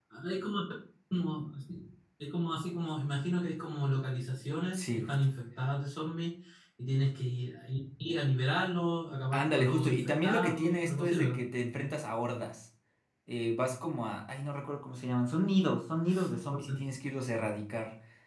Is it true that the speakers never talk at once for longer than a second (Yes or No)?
No